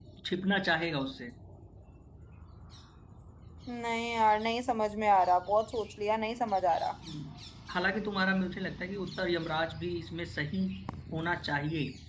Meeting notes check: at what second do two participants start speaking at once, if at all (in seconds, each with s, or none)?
none